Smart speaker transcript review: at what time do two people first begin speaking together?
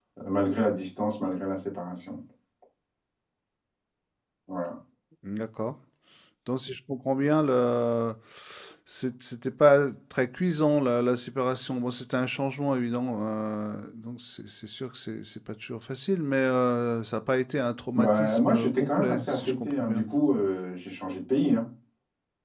17.9 s

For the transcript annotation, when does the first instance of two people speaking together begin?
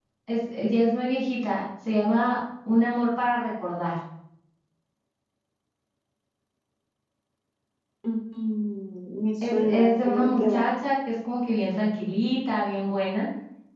9.4 s

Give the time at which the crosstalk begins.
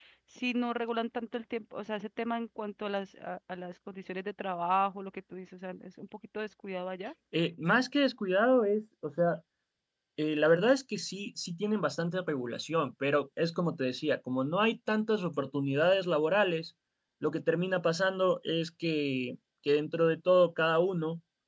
none

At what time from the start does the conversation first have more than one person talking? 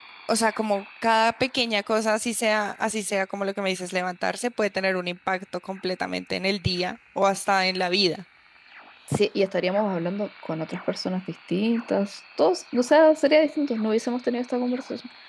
none

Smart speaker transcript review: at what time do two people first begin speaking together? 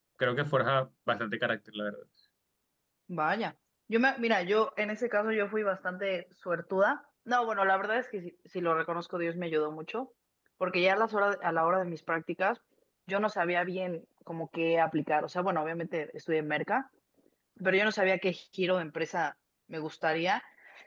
none

